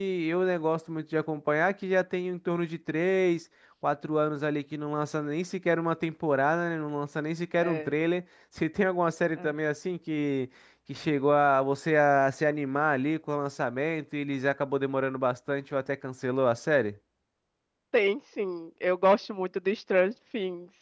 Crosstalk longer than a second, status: none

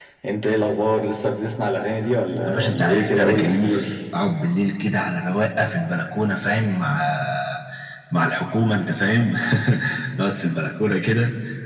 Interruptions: present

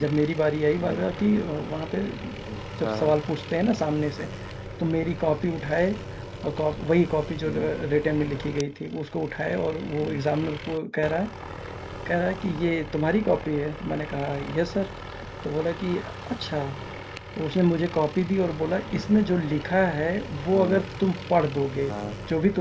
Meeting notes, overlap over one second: none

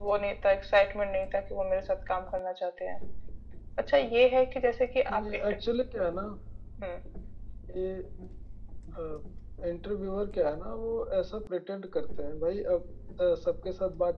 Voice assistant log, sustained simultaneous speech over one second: none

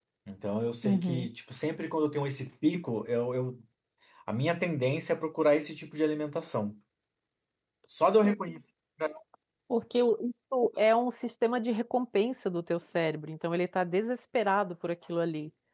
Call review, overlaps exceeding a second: none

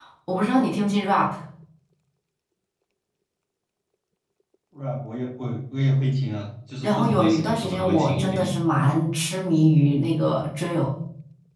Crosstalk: present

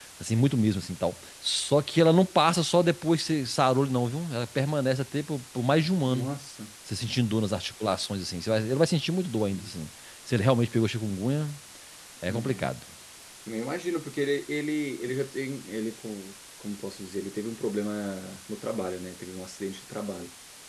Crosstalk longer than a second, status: none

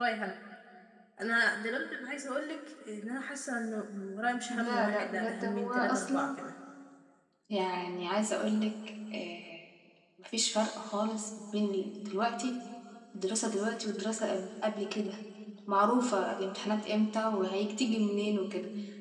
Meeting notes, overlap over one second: present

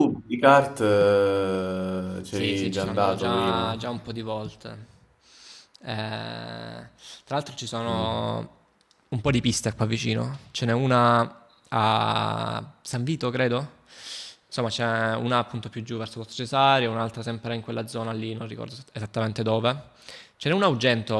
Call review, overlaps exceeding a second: present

